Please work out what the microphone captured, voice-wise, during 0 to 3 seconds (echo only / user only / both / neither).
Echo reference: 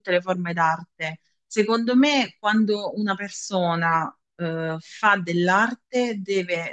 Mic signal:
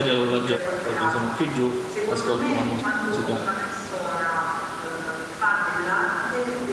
both